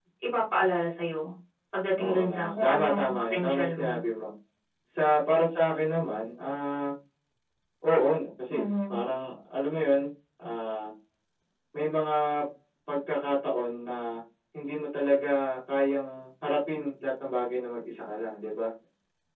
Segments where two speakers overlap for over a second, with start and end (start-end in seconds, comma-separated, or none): 2.0-3.9